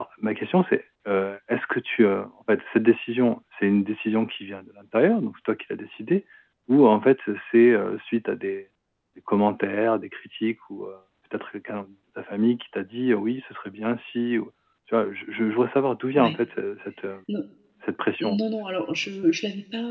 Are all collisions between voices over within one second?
Yes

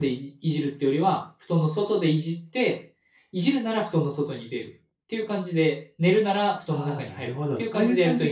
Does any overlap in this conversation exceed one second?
Yes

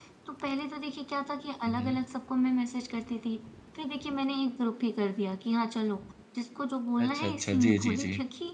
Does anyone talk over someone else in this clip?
Yes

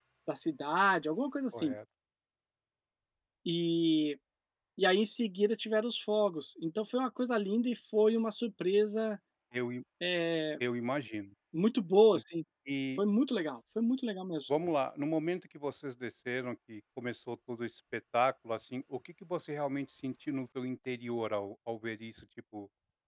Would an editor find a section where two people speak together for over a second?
No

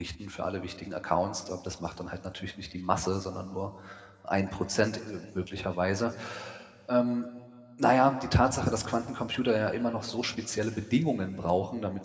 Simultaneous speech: No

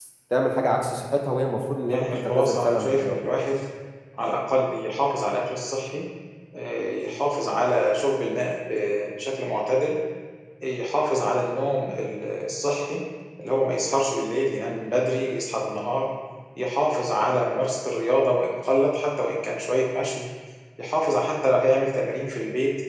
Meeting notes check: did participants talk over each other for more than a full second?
Yes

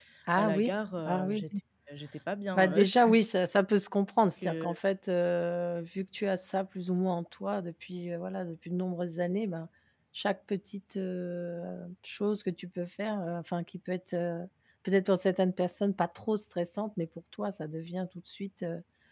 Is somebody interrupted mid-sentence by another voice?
Yes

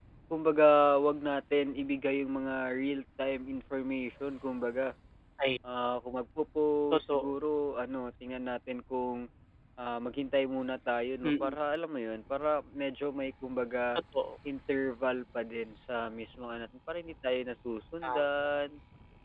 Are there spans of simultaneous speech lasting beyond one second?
No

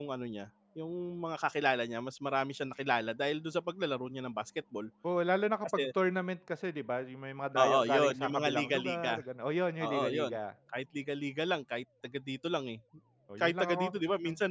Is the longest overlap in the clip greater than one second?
Yes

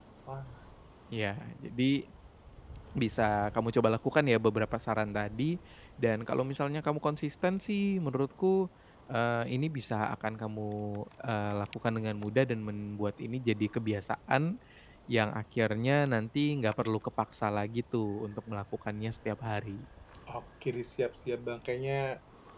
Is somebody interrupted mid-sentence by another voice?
No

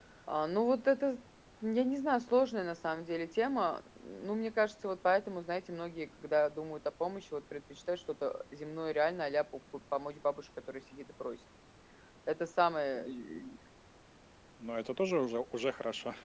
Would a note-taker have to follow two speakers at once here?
No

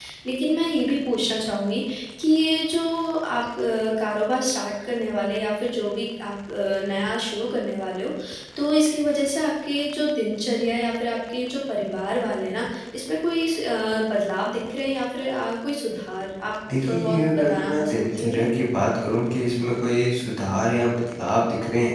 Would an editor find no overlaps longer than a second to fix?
No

